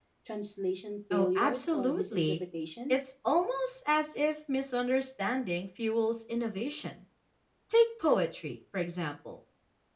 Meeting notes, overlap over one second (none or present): present